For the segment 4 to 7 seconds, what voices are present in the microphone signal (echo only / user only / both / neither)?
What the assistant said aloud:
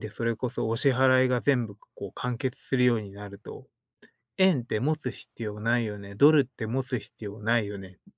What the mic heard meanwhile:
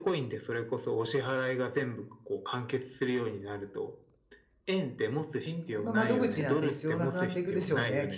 both